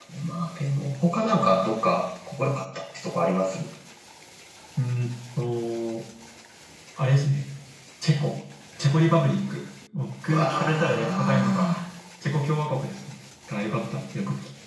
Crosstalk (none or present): present